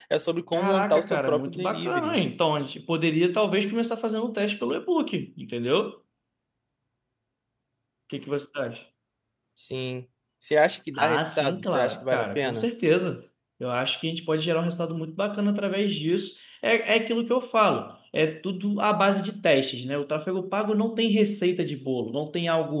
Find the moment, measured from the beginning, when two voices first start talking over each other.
0.5 s

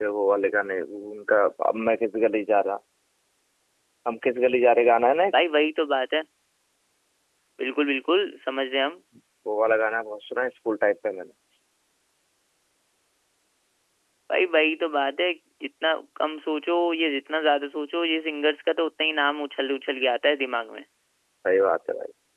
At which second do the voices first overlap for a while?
none

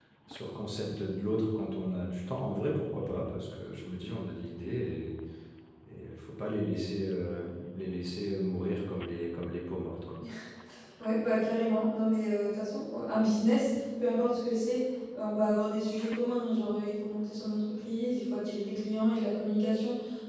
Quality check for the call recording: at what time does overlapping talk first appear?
none

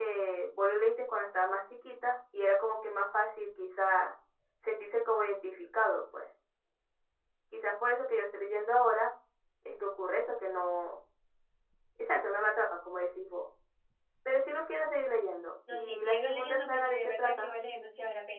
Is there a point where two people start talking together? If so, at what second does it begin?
15.7 s

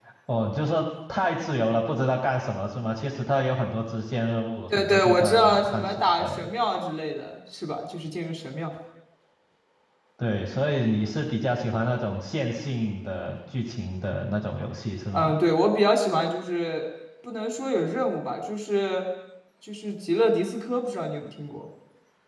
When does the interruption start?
4.7 s

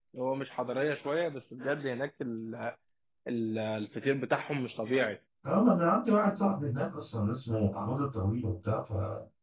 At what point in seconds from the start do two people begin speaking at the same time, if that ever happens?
none

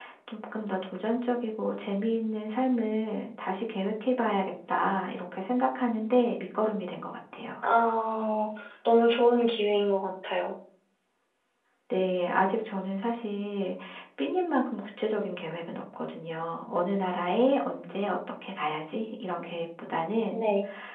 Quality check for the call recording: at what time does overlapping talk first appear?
none

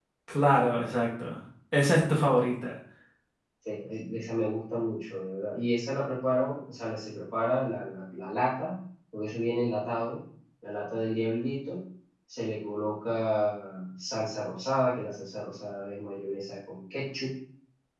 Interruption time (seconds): none

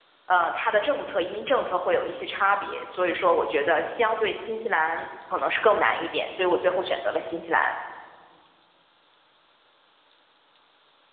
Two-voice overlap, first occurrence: none

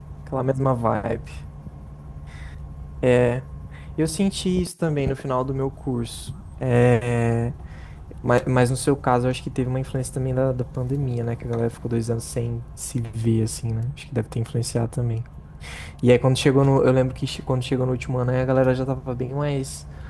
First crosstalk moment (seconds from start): none

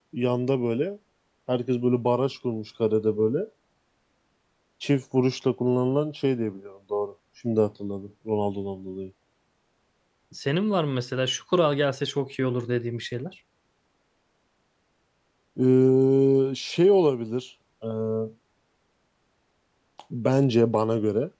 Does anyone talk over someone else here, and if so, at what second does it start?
none

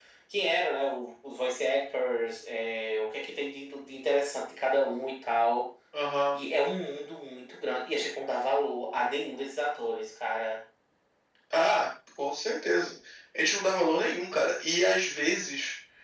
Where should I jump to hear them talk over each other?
none

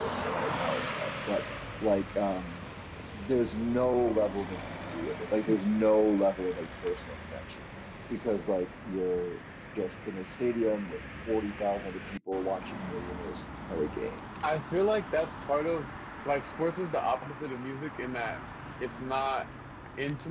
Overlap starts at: none

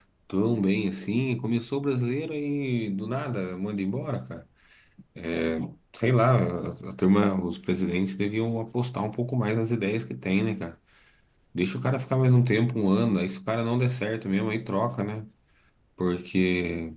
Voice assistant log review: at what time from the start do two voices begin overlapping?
none

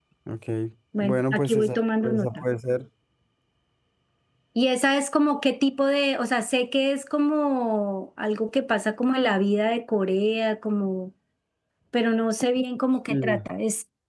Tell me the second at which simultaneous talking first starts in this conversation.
1.0 s

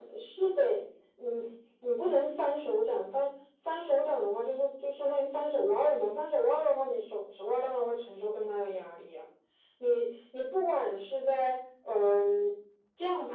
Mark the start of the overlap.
none

